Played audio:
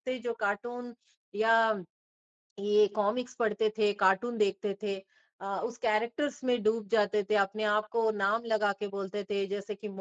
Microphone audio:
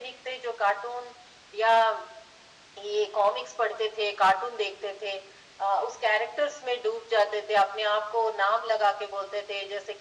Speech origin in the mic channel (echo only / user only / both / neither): echo only